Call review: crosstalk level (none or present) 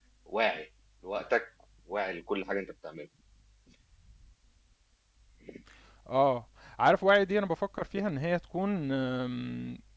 none